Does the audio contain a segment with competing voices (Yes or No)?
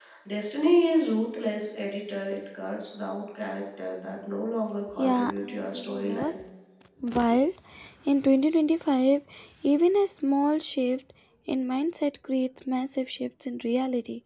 Yes